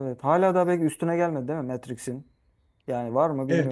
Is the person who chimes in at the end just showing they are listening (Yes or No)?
No